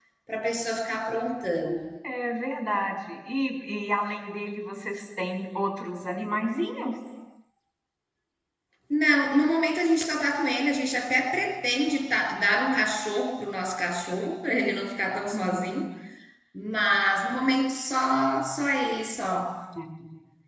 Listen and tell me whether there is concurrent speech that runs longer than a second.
No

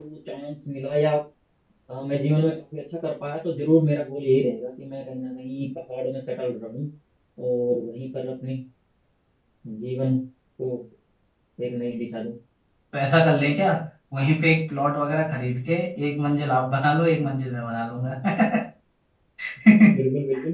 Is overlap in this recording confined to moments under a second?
Yes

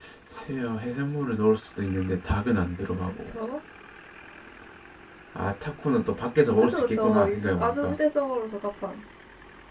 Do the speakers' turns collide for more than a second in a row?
Yes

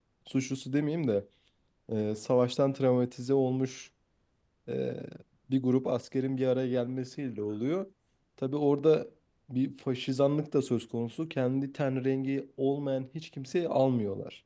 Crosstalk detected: No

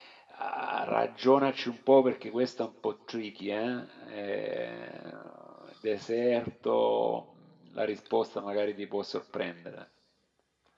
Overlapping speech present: No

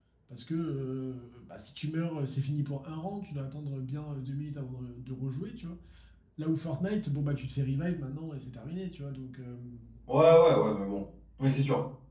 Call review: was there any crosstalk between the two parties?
No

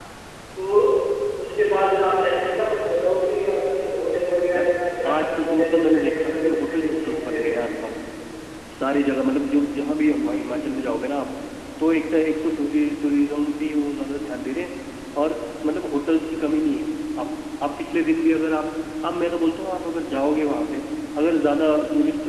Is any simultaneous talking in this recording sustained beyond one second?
Yes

